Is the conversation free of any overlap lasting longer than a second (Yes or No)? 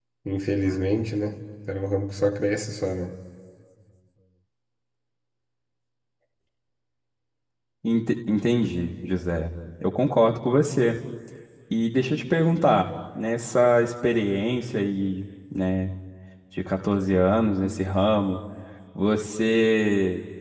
Yes